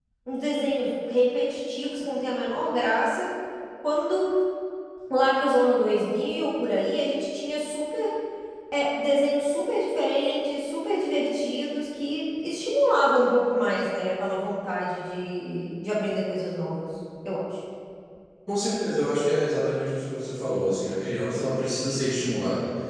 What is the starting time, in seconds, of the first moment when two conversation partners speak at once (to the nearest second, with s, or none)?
none